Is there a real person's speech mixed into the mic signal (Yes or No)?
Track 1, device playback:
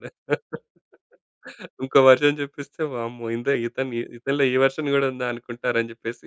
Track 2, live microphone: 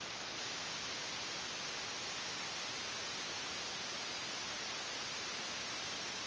No